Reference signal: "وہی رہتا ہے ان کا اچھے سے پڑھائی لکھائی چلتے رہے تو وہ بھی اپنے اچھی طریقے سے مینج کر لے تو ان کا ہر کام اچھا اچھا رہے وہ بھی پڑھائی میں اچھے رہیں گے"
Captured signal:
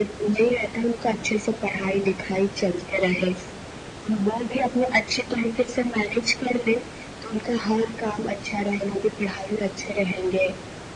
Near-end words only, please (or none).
none